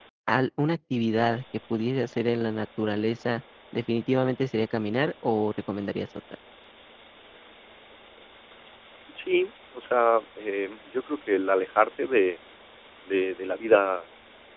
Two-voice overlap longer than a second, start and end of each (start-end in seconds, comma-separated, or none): none